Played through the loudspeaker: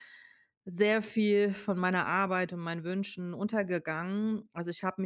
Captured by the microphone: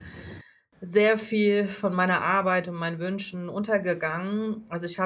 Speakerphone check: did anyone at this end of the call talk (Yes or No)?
No